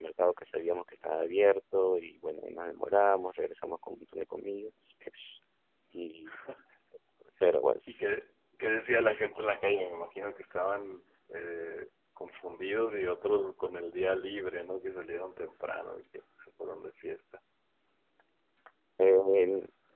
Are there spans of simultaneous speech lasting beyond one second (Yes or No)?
No